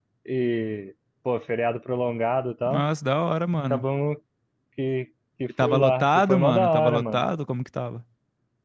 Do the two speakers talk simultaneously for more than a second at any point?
Yes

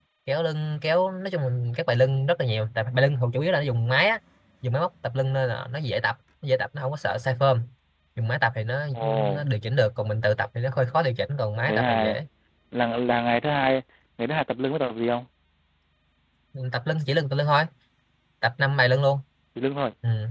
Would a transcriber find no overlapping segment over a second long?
Yes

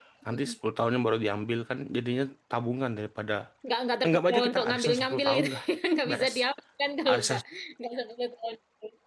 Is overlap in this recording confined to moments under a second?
No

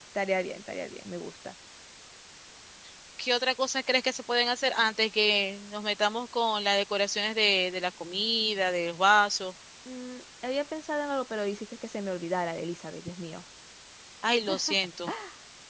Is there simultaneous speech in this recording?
No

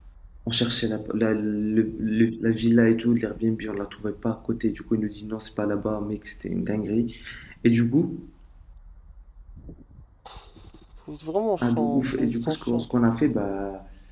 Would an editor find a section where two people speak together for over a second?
Yes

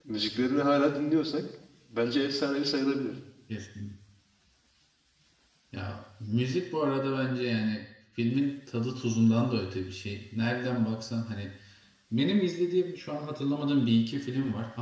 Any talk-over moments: No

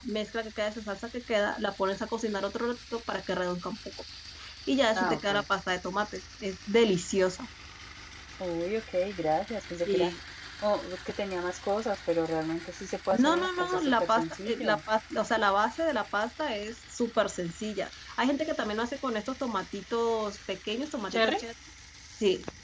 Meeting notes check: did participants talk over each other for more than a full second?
Yes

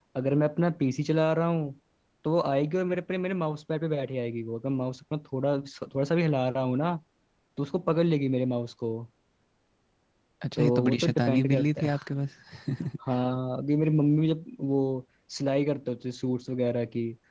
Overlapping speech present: Yes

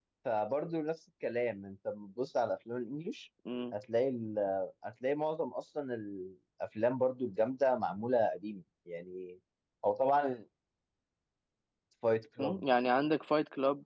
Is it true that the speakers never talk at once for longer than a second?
Yes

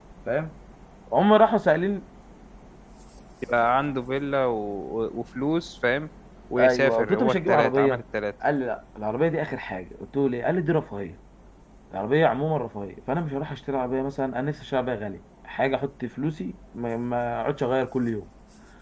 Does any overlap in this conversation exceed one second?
Yes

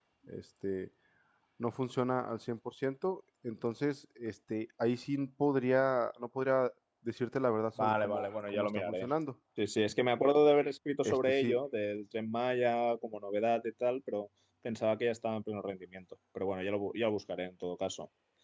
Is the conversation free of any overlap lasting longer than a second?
No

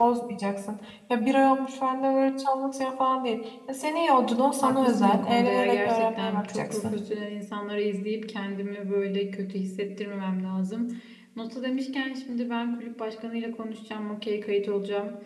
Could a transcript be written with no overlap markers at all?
No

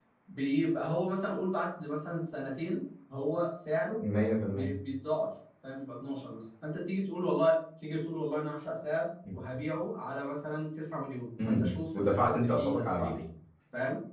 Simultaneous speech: Yes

